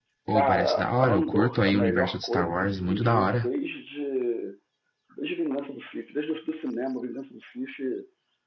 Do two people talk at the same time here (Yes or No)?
Yes